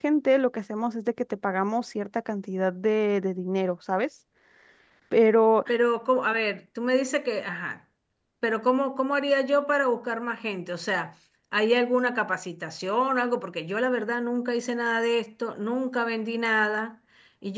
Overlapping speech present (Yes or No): No